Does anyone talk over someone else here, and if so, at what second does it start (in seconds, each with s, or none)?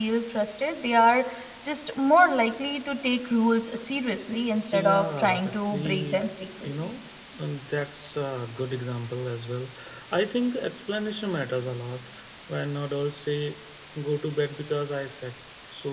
4.7 s